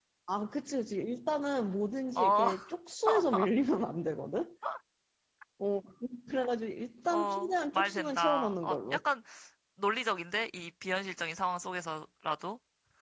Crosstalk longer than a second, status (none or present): present